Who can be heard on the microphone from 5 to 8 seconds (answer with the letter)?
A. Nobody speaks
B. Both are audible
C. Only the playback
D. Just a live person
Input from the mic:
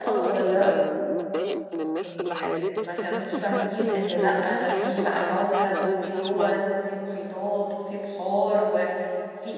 B